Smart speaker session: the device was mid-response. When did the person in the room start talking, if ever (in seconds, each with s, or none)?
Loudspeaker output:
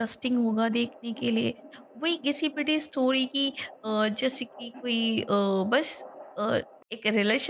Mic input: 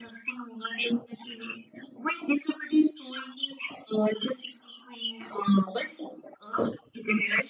none